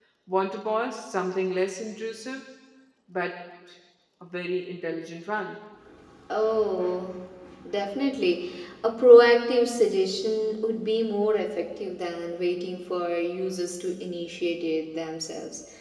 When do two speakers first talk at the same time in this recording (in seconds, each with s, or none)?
none